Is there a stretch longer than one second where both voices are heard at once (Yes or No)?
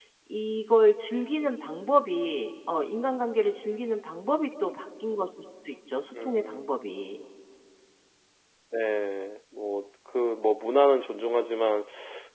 No